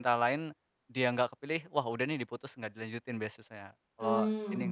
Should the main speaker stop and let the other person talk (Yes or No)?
Yes